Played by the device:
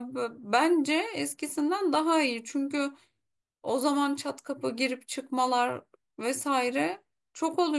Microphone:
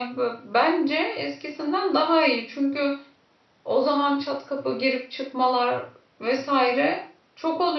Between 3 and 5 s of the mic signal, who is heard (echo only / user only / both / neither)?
echo only